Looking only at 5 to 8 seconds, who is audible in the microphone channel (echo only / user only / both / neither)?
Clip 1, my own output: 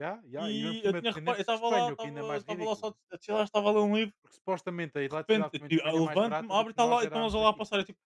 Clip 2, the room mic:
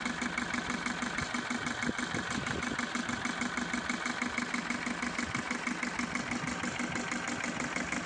neither